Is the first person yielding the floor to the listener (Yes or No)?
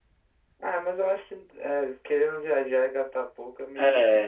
Yes